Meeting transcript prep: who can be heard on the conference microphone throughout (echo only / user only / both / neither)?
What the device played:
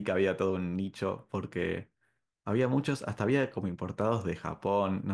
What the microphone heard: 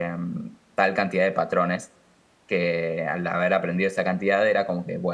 user only